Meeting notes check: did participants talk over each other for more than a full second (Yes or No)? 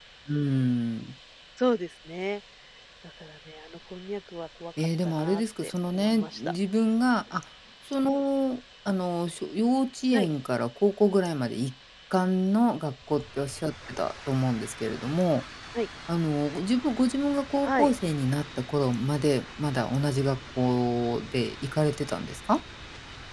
Yes